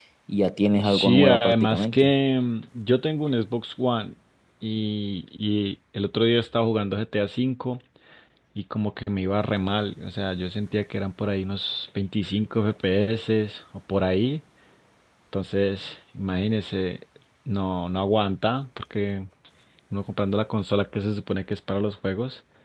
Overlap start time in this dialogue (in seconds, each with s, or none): 0.8 s